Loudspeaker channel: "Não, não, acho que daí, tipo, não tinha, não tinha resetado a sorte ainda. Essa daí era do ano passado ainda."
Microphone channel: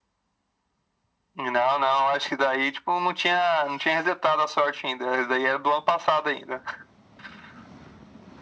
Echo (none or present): present